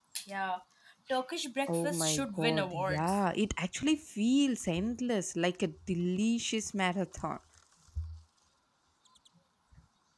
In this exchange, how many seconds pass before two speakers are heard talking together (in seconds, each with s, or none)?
1.7 s